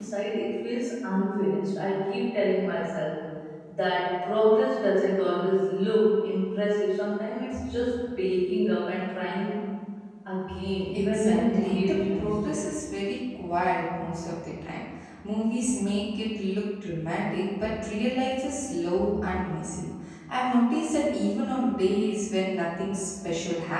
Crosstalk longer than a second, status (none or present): present